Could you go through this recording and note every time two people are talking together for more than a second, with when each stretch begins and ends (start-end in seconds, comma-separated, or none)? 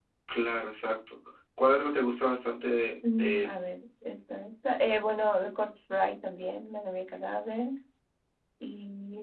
none